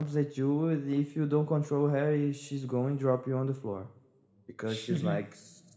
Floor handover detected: No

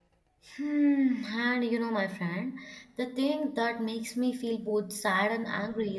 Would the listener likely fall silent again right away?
Yes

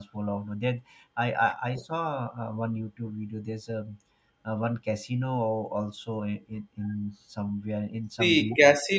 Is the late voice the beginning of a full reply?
Yes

